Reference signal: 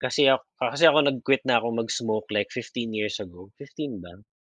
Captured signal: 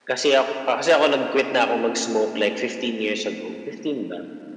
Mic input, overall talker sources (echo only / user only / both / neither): echo only